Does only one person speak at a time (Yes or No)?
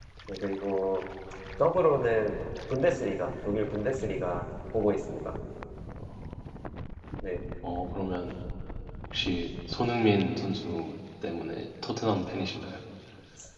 Yes